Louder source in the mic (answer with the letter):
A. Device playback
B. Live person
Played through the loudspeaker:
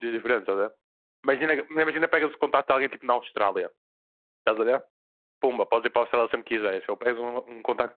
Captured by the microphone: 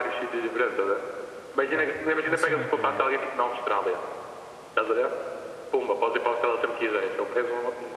A